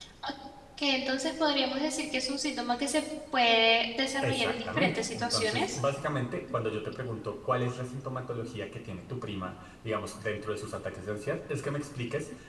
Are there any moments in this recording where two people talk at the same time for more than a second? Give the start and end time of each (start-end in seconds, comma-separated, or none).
4.2-5.8